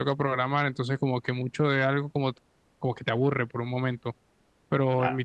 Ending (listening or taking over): listening